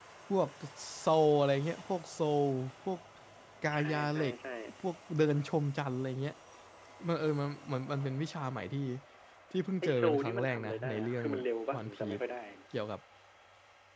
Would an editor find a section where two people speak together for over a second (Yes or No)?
Yes